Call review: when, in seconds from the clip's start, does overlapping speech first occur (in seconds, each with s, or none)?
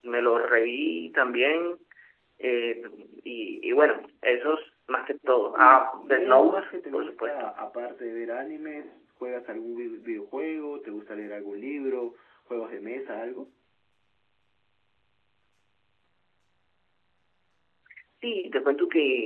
5.6 s